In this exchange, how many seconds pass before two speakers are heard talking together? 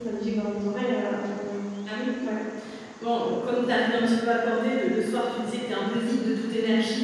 none

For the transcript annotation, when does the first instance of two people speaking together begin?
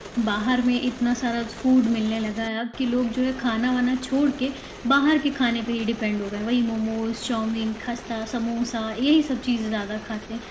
none

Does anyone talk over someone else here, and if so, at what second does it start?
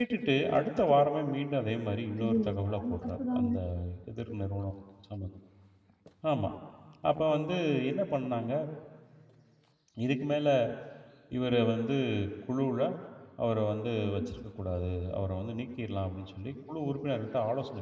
2.2 s

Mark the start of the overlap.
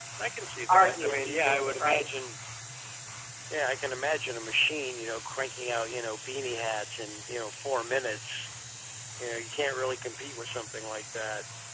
0.7 s

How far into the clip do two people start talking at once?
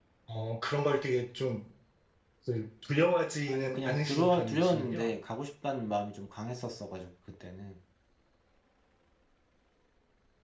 3.5 s

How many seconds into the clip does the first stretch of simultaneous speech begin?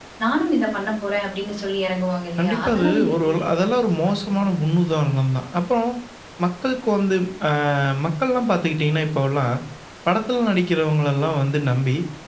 2.4 s

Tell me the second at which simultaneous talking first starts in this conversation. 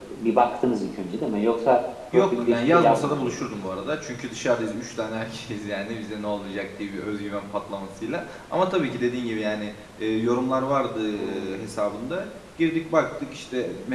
2.1 s

